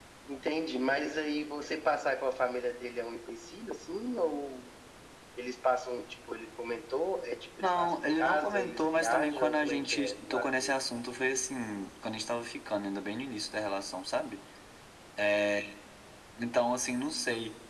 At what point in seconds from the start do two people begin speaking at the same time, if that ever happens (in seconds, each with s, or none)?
7.6 s